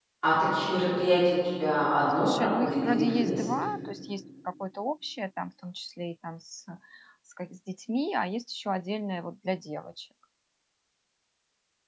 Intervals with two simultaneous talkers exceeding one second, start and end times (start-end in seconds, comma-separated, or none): 2.2-3.6